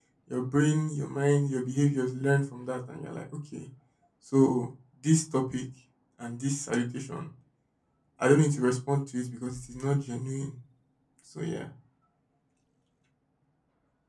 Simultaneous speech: No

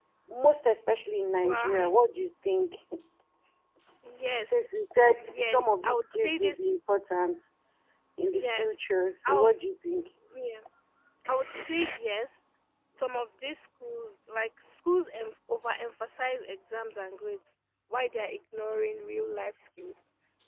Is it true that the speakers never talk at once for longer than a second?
No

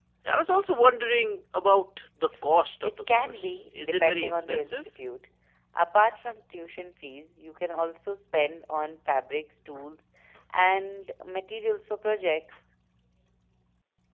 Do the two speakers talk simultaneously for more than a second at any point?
Yes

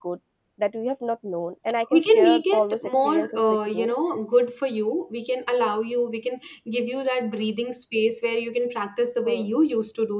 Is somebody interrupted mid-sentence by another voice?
Yes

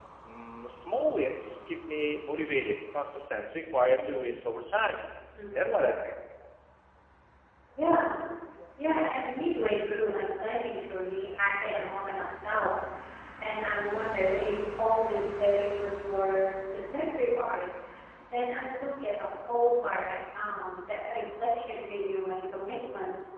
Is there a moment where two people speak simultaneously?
No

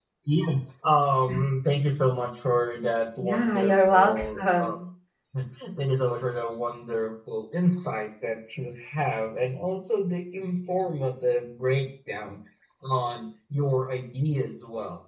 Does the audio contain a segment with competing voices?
Yes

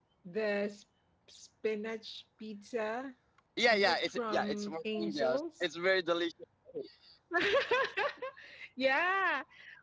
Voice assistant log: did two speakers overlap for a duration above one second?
Yes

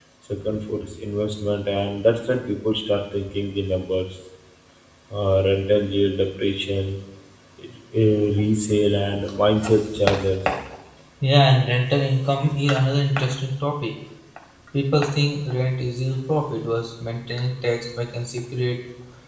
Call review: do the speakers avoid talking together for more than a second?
Yes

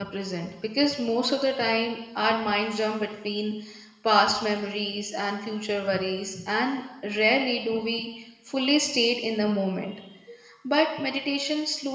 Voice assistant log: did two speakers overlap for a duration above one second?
No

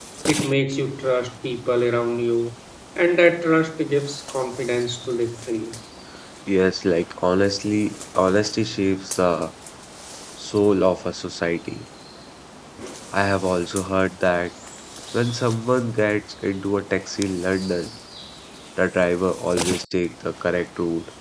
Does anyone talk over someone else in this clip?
No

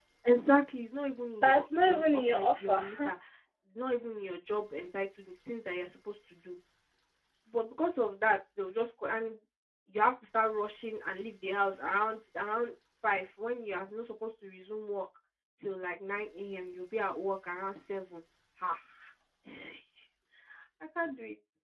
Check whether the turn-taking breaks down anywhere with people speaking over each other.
Yes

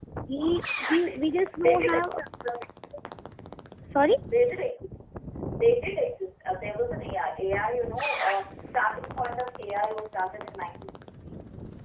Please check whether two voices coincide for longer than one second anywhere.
Yes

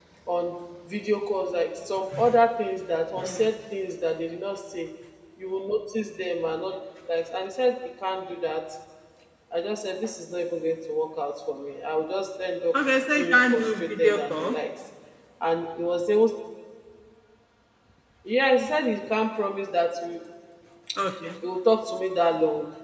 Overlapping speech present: Yes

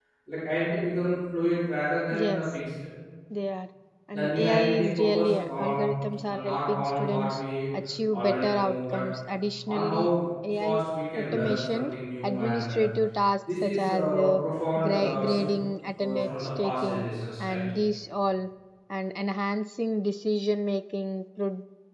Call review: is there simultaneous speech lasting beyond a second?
Yes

